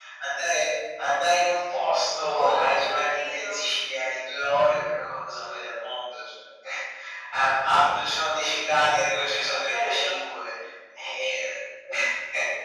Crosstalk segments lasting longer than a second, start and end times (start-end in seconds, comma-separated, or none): 2.2-3.6